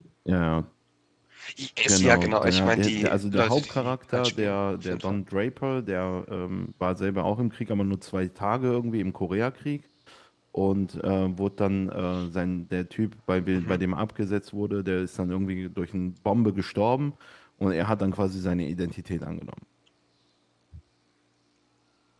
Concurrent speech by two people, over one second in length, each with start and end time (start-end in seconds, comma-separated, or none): 1.9-5.2